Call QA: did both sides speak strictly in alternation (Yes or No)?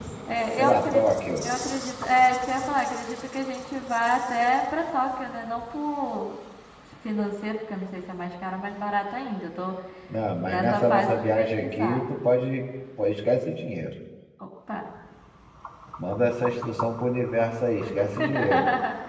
No